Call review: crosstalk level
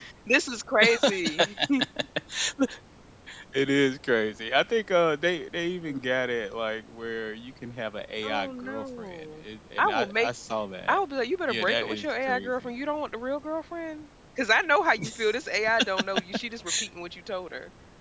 present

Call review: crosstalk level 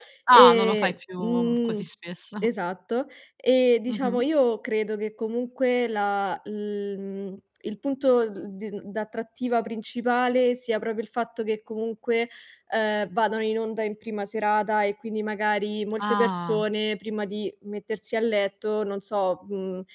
present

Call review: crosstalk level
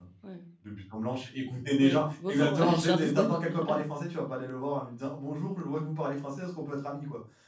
present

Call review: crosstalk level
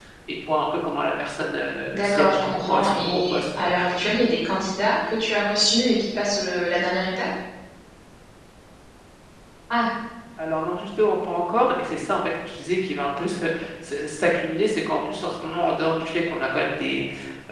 present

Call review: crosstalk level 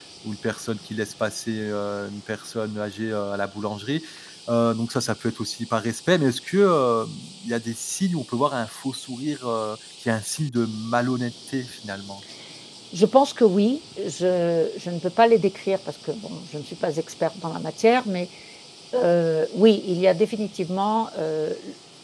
none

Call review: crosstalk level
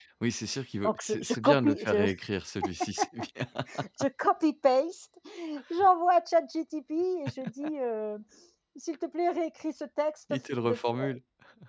present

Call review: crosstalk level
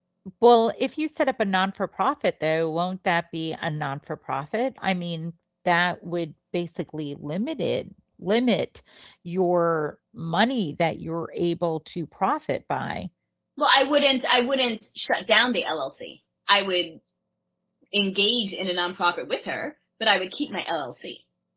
none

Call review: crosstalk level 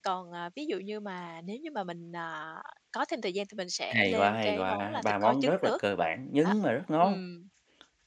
present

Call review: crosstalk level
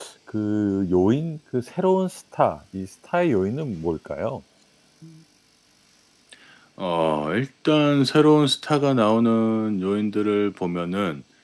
none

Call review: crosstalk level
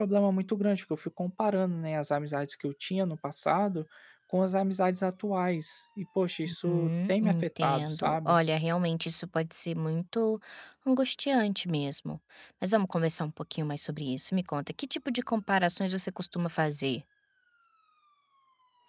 present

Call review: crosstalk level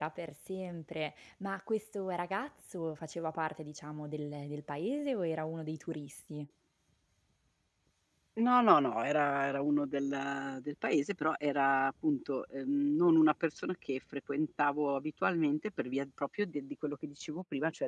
none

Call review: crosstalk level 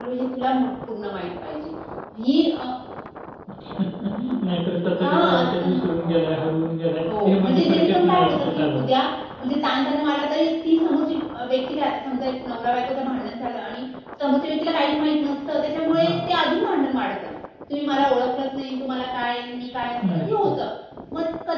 present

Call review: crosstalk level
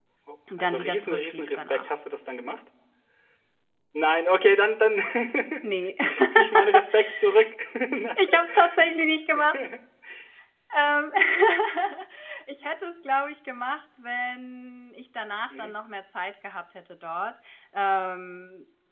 present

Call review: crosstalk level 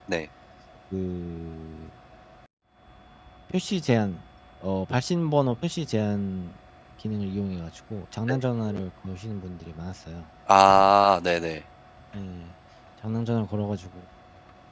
none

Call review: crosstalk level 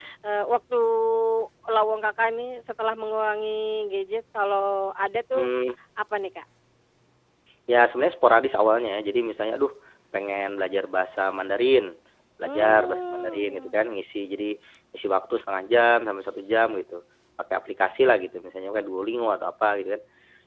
present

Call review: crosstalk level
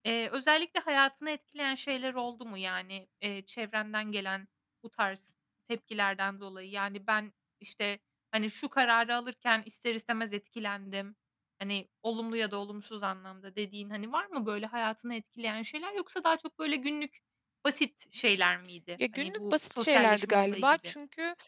present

